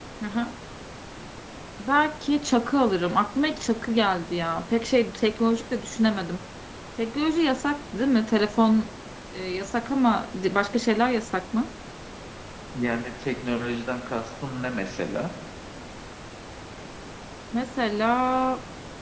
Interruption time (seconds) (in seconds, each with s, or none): none